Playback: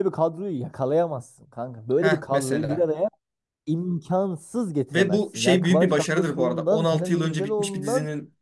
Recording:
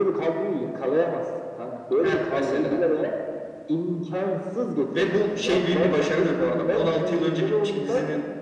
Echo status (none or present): present